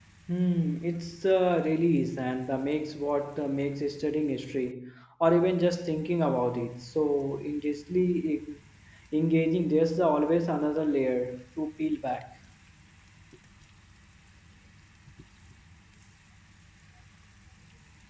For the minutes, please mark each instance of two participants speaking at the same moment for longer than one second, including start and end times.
none

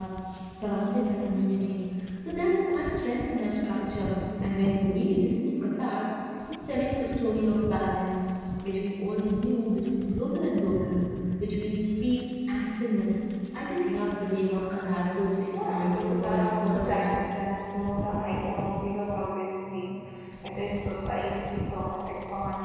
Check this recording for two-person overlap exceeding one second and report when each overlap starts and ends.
15.5-17.2

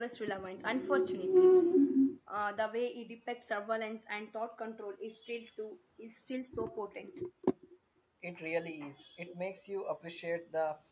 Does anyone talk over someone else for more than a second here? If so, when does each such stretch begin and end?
none

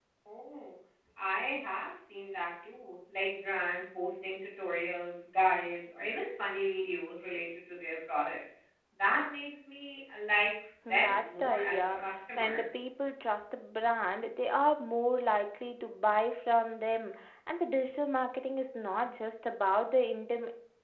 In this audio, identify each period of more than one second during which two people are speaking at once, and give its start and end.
10.9-12.6

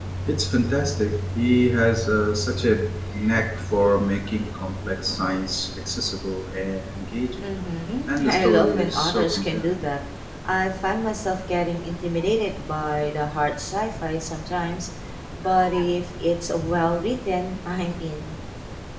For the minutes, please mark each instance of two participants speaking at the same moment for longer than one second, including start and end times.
8.1-9.8

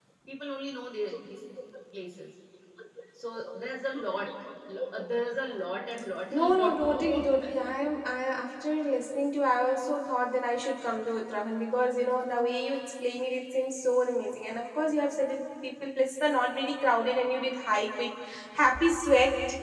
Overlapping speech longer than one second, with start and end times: 6.3-7.8

